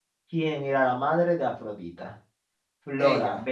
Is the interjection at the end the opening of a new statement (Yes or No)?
No